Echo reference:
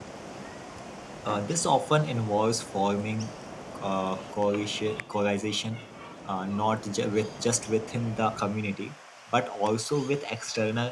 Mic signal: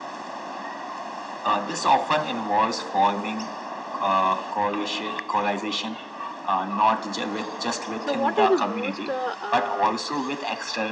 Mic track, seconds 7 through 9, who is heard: both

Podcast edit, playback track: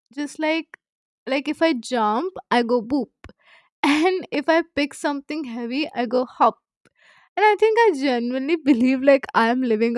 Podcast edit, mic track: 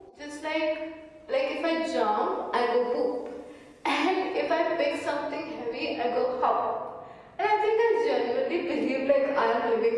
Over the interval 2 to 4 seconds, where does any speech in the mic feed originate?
echo only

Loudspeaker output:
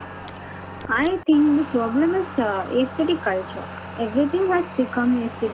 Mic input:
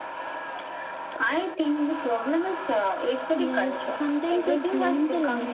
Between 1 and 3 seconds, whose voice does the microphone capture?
echo only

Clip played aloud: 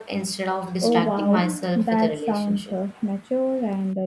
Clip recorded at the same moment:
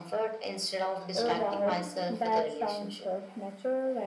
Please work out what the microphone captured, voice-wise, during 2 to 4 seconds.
echo only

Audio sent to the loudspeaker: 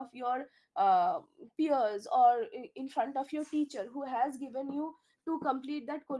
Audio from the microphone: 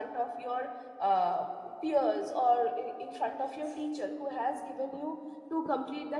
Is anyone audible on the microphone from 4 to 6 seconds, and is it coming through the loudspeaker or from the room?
echo only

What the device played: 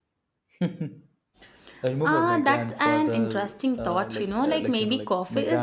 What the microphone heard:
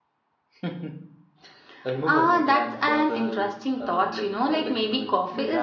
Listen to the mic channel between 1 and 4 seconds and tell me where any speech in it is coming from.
echo only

